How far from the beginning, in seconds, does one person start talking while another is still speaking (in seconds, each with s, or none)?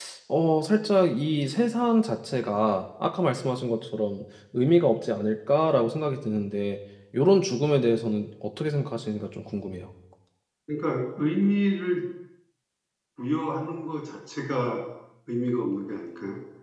none